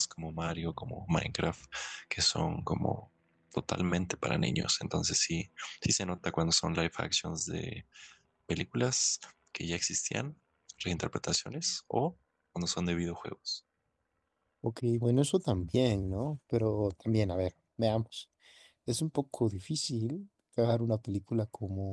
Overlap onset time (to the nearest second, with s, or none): none